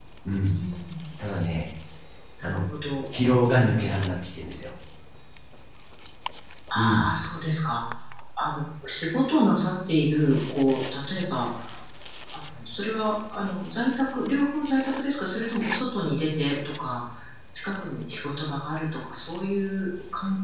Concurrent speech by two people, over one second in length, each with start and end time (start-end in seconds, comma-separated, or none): none